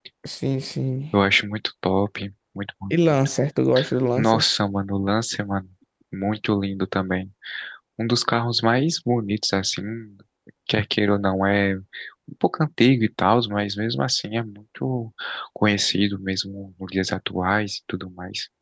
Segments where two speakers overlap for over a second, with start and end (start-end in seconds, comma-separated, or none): none